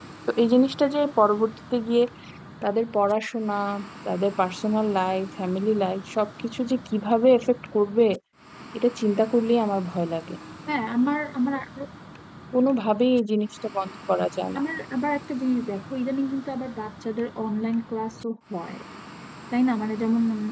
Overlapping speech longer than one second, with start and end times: none

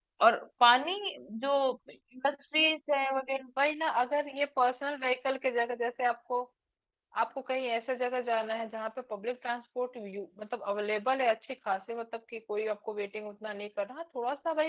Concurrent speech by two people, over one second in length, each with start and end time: none

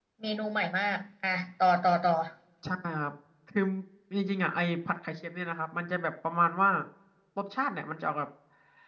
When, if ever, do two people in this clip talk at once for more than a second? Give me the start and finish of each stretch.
none

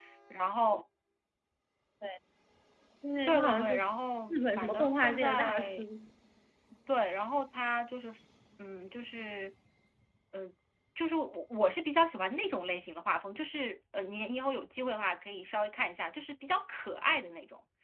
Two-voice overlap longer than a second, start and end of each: 4.3-5.8

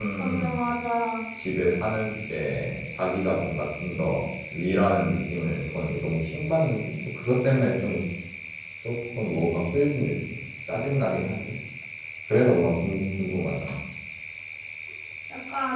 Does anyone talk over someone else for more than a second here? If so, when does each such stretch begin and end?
none

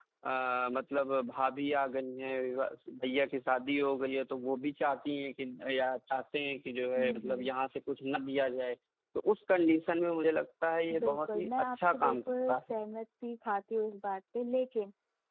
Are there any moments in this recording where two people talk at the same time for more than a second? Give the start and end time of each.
11.0-12.8

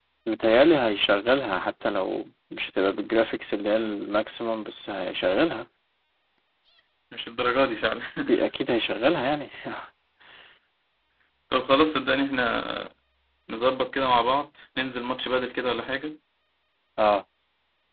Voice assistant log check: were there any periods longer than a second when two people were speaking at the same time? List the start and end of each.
none

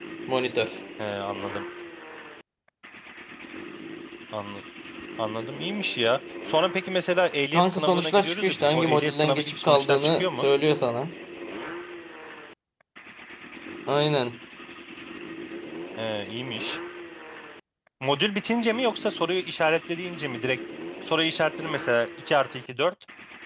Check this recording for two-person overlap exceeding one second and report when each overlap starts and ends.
7.5-10.5

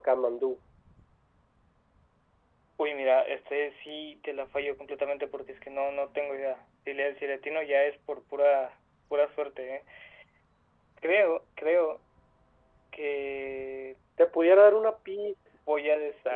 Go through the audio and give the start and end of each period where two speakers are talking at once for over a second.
none

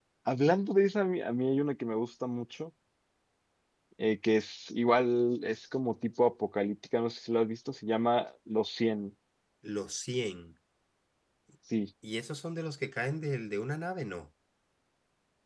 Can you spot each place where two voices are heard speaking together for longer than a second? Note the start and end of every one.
none

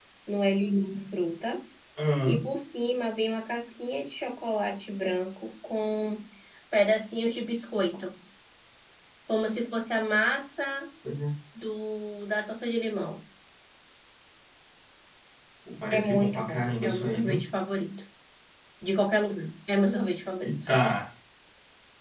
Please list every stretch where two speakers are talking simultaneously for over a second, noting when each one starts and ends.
15.9-17.4

